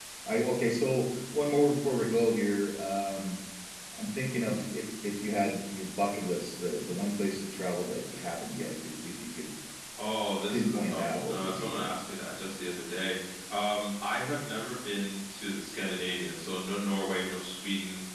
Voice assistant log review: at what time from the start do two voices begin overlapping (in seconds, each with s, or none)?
10.5 s